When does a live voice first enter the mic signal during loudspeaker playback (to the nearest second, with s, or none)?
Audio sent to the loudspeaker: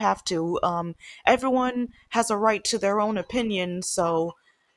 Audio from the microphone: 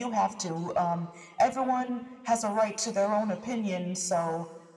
none